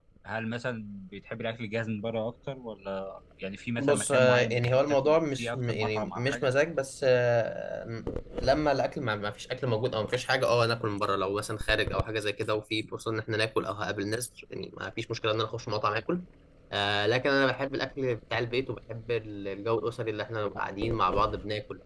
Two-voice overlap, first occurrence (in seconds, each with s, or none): 3.8 s